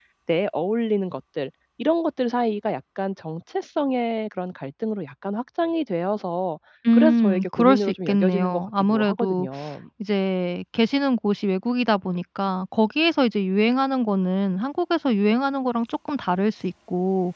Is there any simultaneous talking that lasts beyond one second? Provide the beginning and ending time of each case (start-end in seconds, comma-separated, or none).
6.9-9.5